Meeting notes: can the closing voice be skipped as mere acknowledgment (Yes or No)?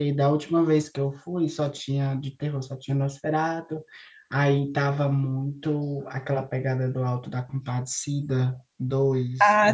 No